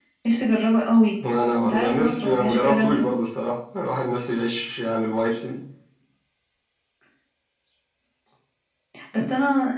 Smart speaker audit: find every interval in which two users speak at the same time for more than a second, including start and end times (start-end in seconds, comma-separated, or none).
1.6-3.1